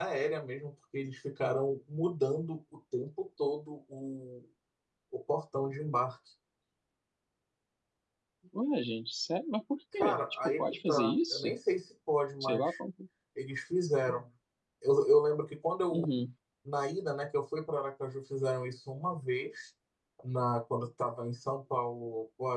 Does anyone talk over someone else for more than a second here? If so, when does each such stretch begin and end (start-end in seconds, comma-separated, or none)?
10.0-11.5